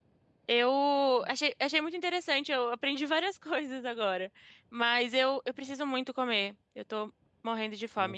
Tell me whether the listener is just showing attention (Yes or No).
No